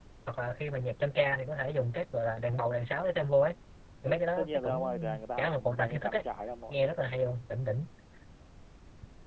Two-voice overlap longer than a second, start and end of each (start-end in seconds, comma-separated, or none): 4.1-6.2